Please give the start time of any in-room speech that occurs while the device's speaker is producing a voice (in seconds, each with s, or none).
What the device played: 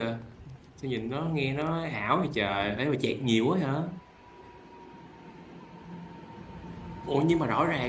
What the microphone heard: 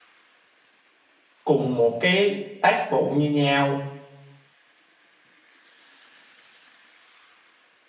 1.4 s